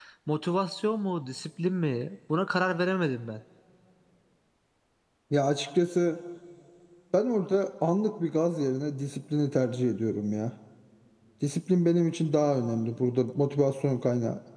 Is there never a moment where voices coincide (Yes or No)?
Yes